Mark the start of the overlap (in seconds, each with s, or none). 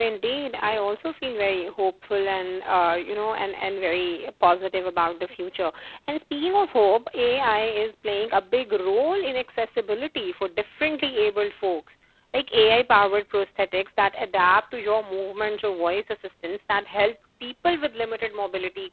none